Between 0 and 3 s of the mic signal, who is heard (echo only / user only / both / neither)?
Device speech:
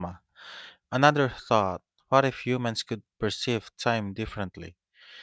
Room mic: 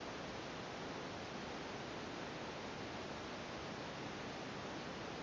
neither